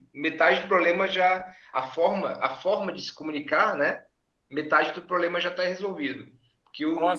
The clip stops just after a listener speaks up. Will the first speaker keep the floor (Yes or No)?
Yes